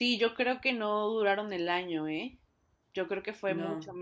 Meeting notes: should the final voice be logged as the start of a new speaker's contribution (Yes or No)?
No